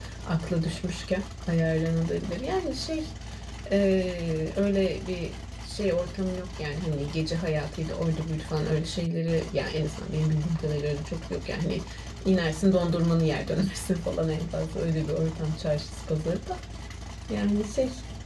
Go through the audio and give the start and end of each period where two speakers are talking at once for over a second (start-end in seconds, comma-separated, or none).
none